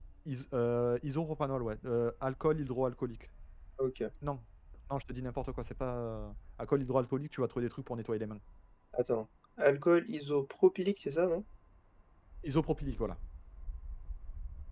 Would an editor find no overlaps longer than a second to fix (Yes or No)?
Yes